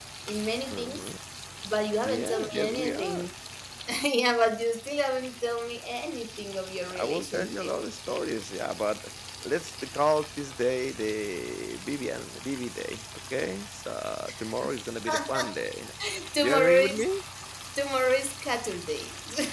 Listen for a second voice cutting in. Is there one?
Yes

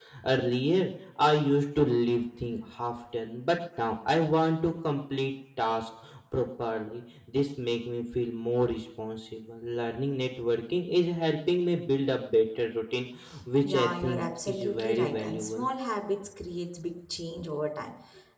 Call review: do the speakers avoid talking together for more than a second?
No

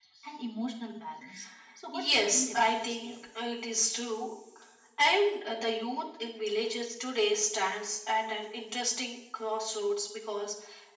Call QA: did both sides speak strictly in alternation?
No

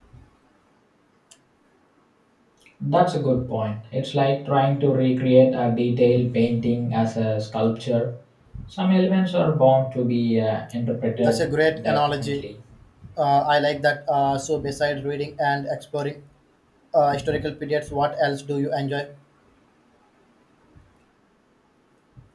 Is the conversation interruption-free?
No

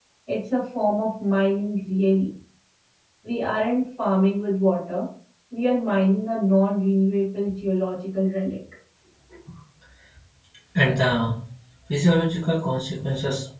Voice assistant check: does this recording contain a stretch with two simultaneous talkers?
No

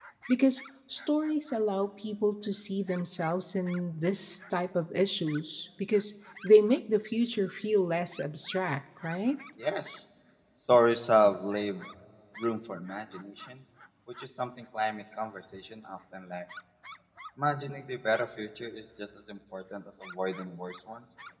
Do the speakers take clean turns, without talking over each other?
Yes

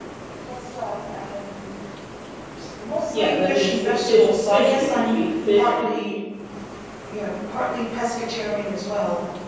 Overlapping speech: Yes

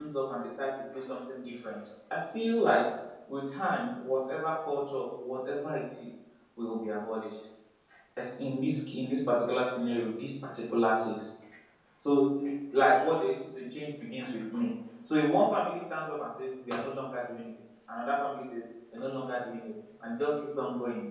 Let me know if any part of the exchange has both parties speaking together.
No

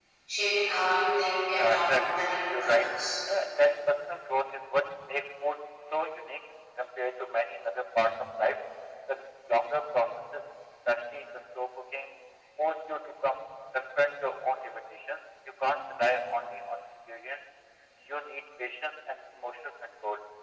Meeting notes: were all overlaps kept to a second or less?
No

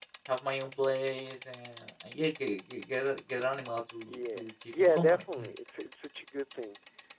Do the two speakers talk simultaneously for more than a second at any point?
Yes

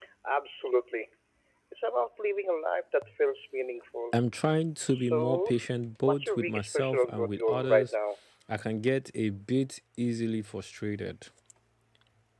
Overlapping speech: Yes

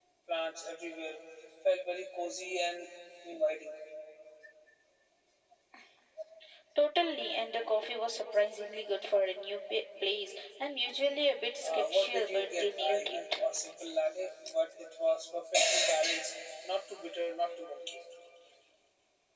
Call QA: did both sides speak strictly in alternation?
No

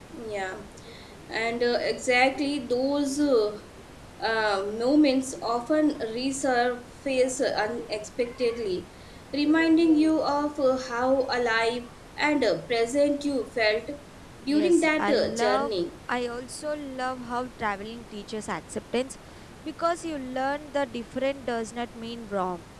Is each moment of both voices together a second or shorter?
No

